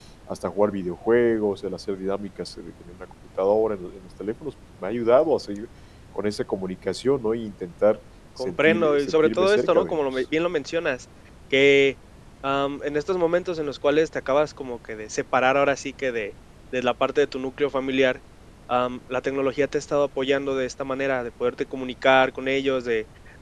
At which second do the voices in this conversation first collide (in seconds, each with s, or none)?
8.4 s